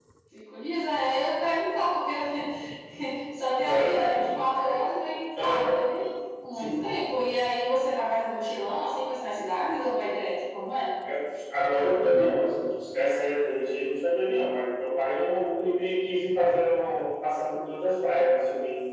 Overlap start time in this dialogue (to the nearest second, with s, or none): 4 s